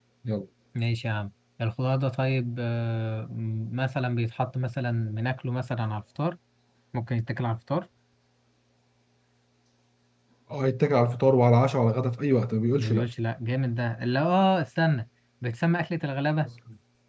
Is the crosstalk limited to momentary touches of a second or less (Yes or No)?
Yes